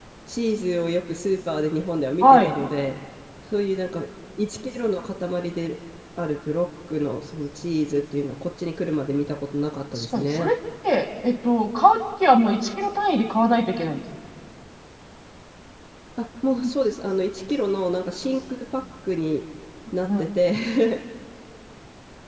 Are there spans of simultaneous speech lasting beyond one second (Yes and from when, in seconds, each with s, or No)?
No